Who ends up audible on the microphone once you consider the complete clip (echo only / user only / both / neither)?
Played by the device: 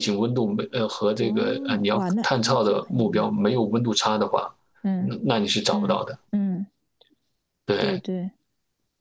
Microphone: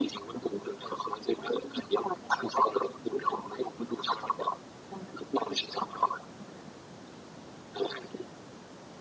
echo only